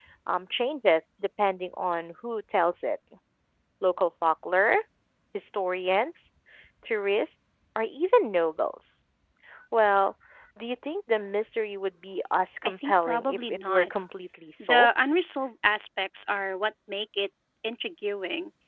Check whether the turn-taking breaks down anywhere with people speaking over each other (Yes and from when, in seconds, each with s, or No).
Yes, from 12.6 s